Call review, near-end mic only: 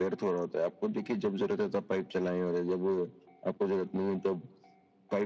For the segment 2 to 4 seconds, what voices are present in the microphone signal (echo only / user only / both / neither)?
echo only